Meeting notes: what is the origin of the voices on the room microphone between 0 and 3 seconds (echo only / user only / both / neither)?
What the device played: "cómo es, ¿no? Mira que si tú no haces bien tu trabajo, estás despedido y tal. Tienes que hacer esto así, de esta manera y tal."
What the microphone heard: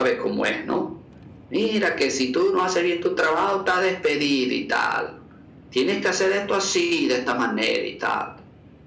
echo only